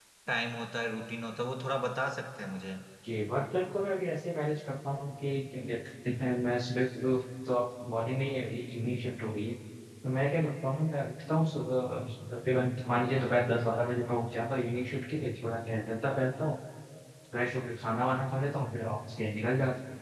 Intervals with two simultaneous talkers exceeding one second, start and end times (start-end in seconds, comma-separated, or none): none